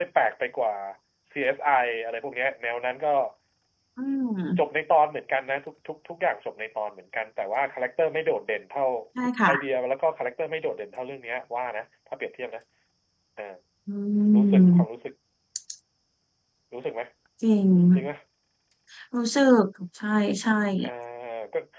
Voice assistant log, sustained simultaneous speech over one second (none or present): none